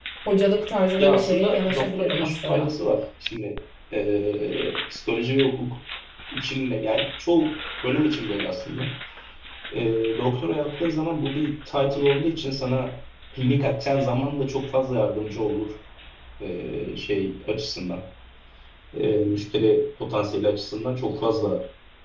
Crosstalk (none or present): present